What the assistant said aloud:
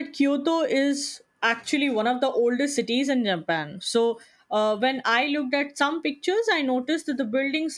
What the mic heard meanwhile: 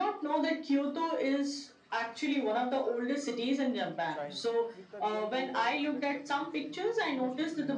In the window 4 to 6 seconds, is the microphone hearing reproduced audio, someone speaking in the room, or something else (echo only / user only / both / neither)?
both